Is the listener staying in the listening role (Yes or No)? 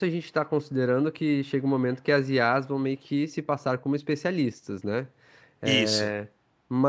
Yes